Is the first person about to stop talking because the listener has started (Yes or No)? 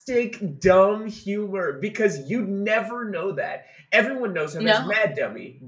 No